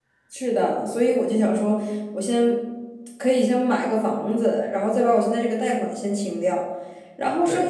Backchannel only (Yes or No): Yes